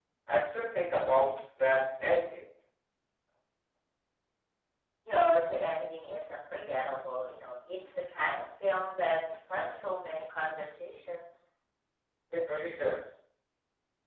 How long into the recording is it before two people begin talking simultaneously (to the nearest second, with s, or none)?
none